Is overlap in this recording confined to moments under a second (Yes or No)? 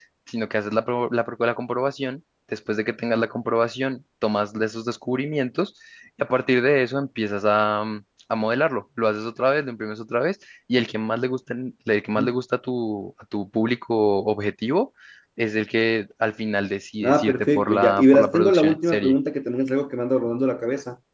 No